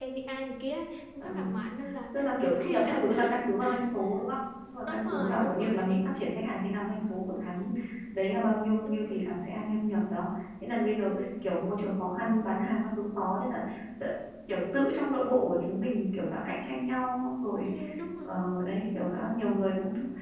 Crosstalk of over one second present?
Yes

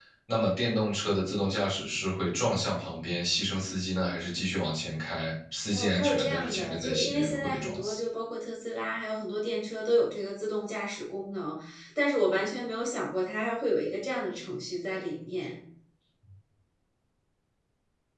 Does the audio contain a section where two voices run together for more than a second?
Yes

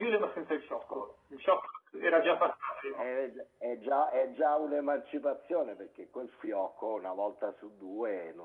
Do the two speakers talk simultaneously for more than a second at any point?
No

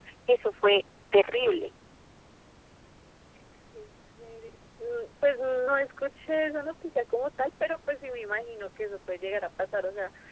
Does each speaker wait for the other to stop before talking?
Yes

